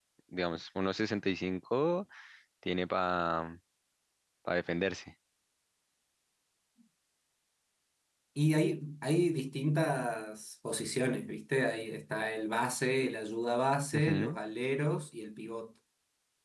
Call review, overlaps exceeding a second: none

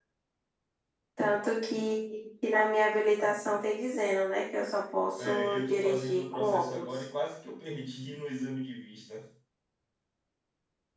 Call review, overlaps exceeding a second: present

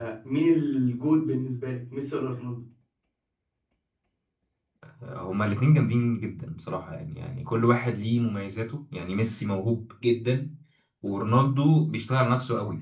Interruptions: none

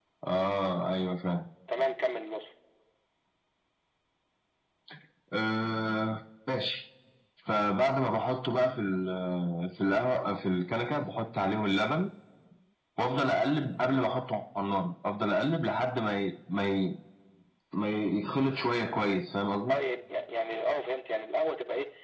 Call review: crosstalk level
none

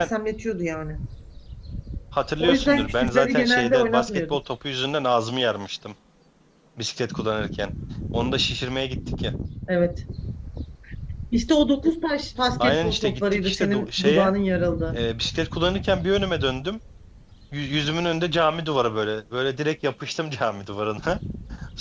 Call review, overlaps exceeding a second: present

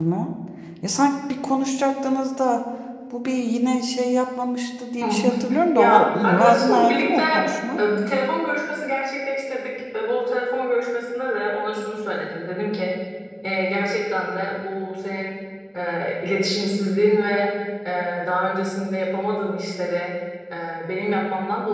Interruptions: present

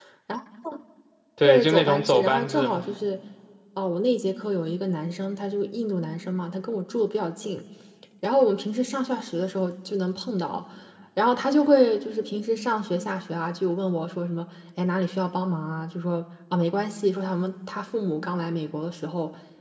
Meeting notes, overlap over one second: present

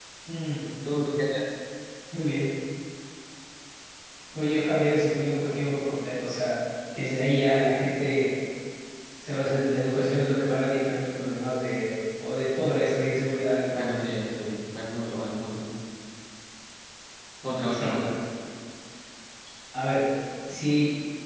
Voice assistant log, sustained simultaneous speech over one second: none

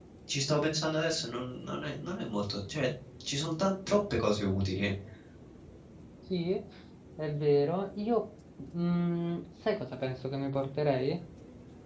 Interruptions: none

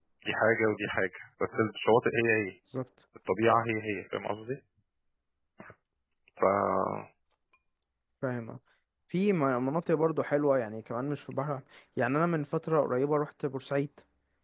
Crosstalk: none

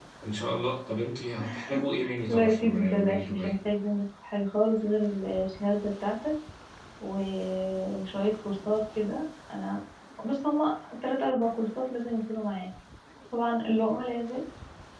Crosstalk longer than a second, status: present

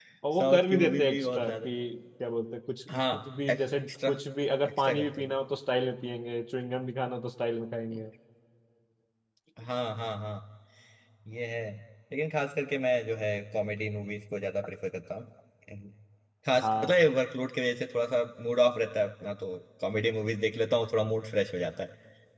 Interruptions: present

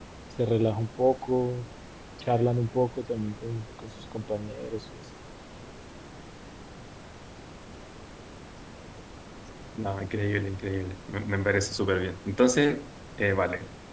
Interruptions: none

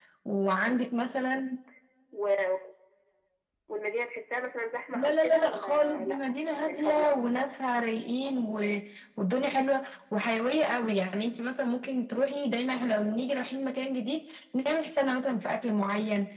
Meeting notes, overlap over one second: present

